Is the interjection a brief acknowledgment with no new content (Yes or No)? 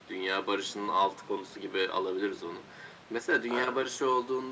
Yes